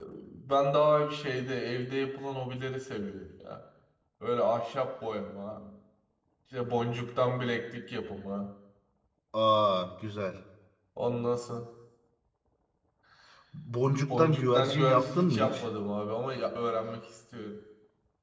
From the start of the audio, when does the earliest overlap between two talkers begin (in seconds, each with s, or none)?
14.1 s